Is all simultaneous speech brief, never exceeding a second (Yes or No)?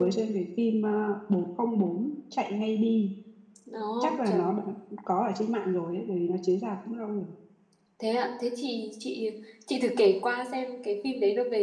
Yes